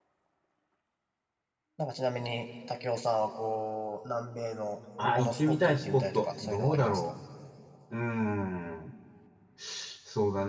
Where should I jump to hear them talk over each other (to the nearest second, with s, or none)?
5 s